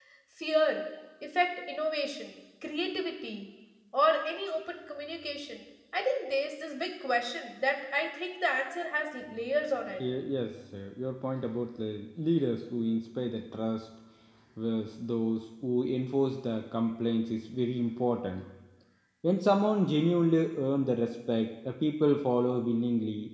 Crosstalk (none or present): none